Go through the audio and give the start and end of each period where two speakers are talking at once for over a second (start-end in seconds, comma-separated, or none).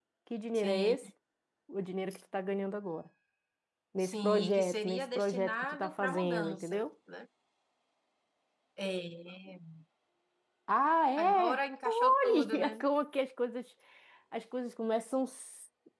4.0-6.8, 11.2-12.7